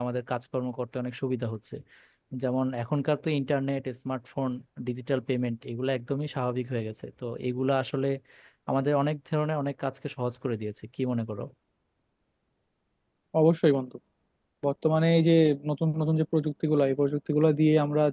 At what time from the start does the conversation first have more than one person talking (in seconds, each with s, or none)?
none